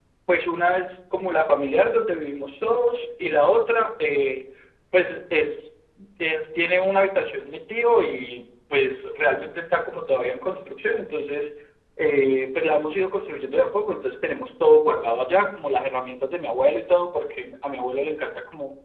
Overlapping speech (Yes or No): No